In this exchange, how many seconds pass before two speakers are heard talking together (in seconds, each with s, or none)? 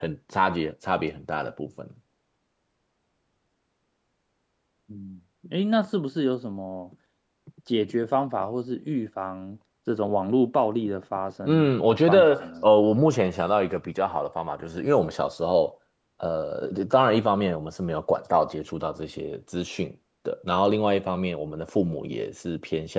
11.4 s